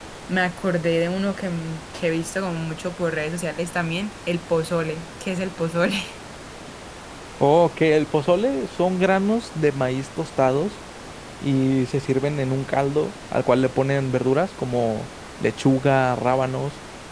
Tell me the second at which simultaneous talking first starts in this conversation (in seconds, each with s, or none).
none